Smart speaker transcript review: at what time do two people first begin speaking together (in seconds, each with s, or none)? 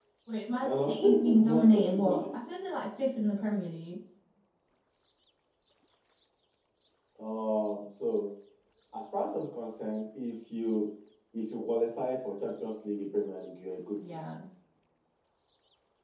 0.6 s